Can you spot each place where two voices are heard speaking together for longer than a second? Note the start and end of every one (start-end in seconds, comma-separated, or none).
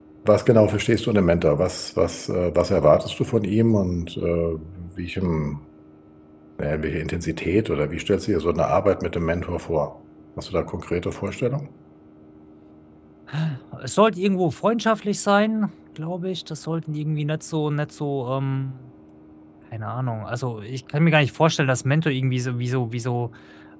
none